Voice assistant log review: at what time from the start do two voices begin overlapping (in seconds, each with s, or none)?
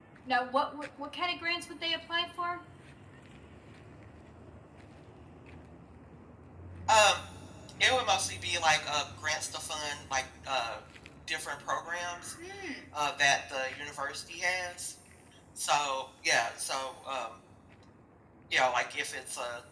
none